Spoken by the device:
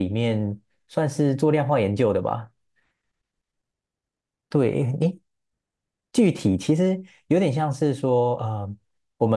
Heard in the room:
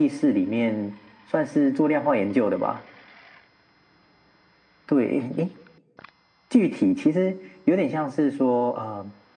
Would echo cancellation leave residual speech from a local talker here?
No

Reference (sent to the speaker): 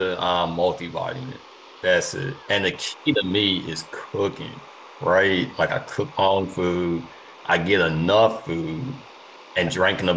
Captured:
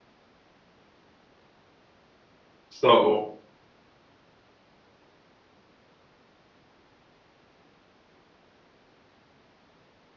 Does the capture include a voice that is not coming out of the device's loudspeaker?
Yes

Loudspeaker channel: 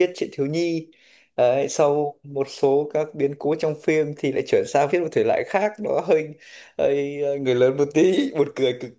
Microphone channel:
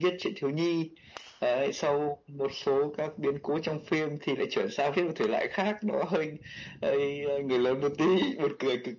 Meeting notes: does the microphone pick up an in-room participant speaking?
No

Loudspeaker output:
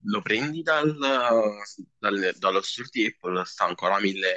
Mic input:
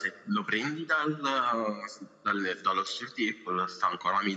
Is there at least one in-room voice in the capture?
No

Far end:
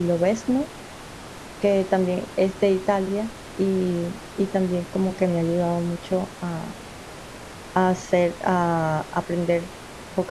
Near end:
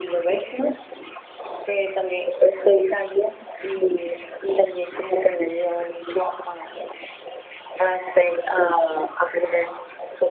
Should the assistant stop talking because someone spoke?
No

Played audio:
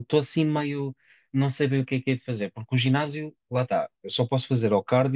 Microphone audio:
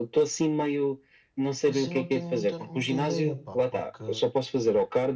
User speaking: Yes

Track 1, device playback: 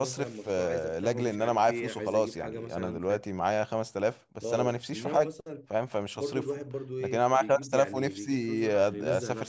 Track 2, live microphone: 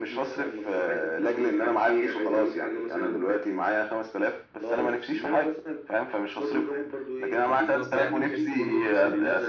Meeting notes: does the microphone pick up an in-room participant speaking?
Yes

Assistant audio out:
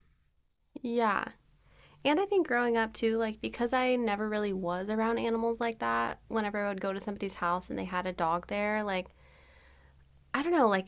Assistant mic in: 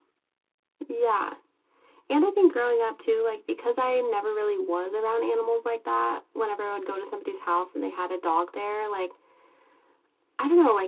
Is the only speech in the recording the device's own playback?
Yes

